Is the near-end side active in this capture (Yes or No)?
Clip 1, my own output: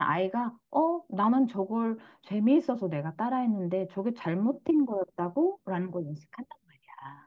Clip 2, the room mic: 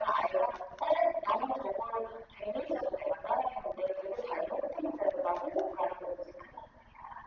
No